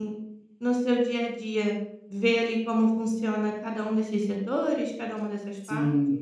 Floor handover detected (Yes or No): Yes